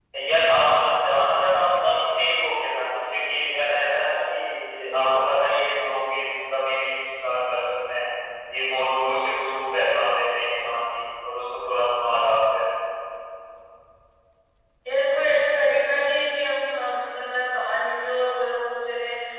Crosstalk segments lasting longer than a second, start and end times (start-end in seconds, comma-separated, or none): none